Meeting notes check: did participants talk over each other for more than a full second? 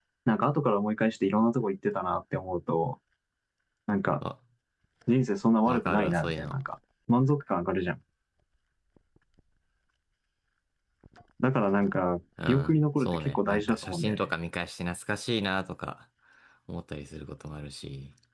Yes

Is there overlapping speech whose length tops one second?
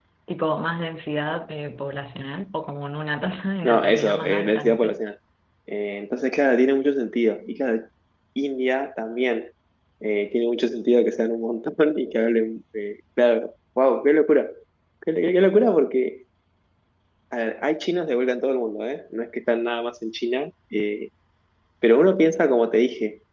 Yes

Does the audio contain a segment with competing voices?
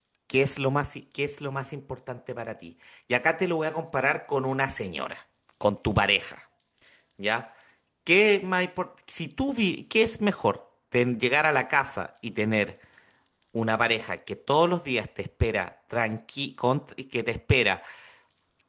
No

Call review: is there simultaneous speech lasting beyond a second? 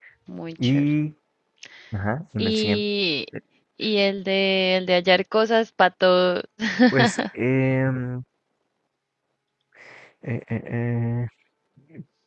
No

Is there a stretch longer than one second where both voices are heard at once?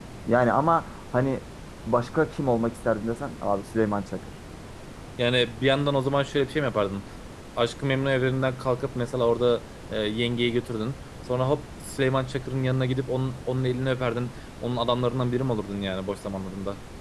No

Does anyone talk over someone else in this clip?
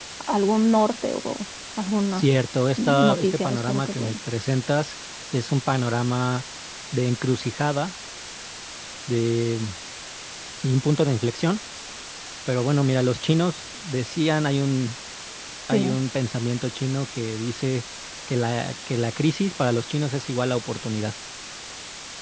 Yes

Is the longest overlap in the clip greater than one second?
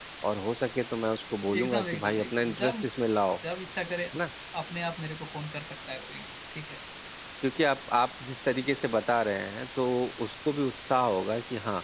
Yes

